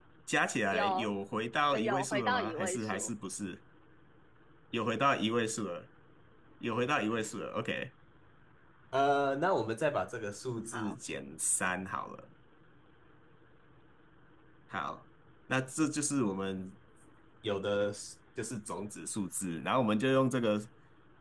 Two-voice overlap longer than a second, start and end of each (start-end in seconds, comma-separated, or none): 1.7-3.1